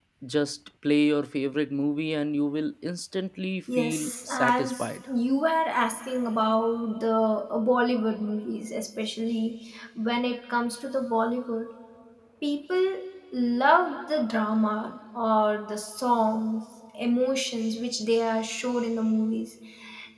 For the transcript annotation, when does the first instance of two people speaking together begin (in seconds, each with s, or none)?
3.7 s